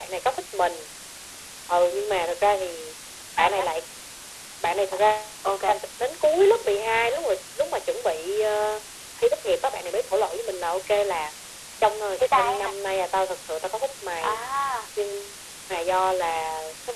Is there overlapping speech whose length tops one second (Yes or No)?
No